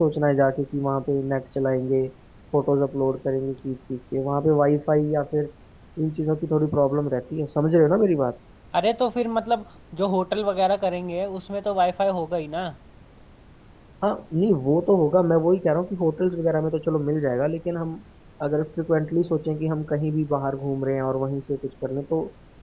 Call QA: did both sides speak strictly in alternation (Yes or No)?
Yes